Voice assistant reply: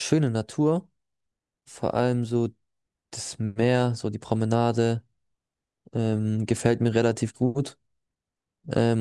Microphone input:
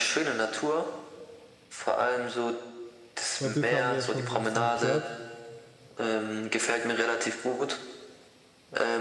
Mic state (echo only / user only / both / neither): both